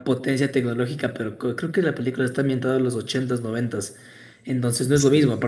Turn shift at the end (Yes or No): No